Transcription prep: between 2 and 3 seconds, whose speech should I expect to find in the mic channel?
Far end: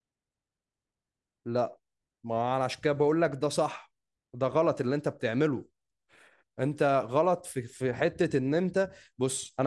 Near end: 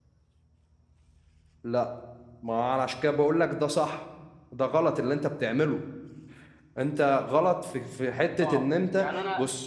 echo only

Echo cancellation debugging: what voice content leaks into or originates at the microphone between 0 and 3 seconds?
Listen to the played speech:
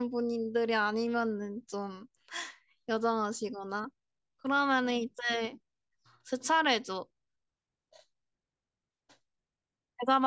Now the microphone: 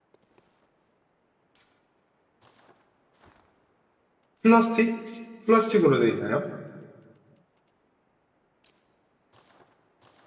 neither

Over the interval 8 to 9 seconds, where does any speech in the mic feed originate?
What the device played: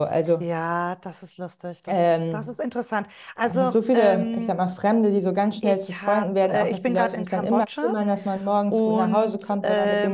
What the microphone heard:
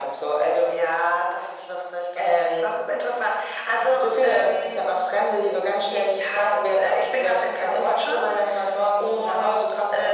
echo only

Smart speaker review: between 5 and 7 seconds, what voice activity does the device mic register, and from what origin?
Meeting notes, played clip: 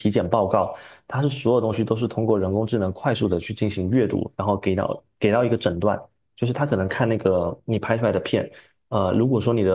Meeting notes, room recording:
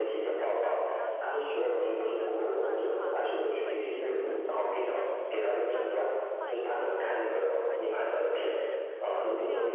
both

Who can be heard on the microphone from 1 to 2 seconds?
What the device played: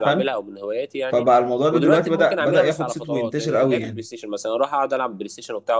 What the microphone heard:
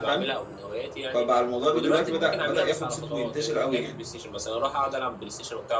echo only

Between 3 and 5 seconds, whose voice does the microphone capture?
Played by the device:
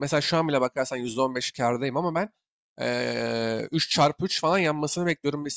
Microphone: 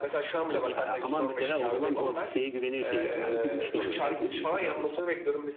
both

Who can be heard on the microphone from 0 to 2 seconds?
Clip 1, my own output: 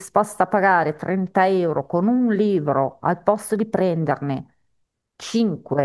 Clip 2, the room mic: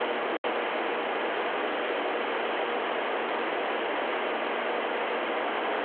neither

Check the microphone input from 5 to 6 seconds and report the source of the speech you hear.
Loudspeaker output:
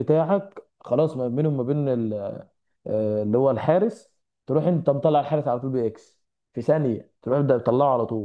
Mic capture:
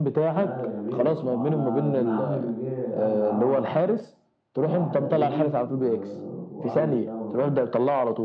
both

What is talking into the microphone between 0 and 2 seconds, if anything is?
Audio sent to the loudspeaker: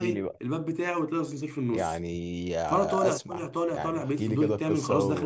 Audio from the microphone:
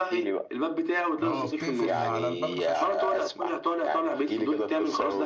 both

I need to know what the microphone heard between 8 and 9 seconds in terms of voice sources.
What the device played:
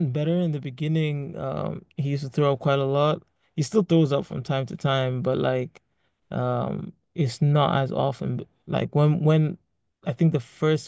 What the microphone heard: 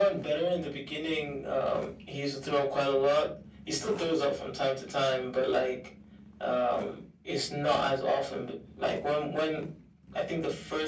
echo only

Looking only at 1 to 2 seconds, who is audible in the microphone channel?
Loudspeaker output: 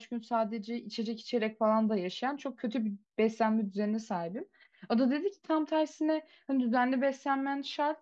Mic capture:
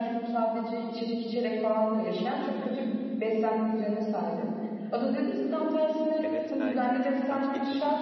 echo only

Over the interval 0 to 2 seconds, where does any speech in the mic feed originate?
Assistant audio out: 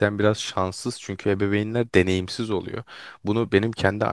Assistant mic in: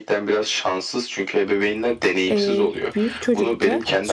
echo only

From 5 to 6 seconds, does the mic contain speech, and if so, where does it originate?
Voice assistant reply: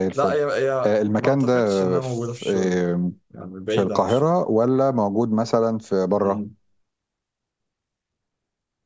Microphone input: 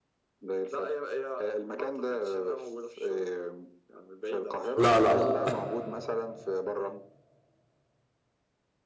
both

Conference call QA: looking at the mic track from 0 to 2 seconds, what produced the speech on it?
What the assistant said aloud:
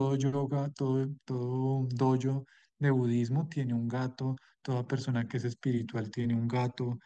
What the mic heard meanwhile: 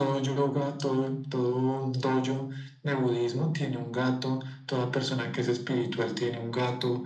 echo only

